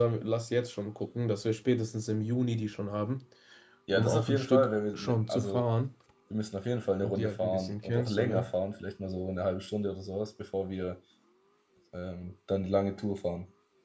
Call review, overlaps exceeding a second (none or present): present